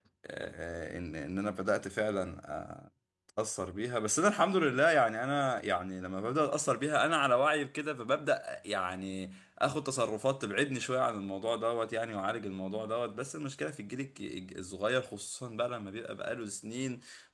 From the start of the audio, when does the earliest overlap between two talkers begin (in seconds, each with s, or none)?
none